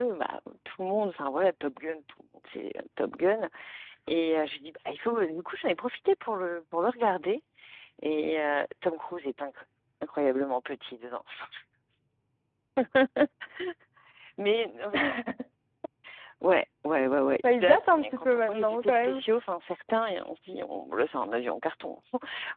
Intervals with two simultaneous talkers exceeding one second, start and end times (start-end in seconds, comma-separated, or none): 17.4-19.2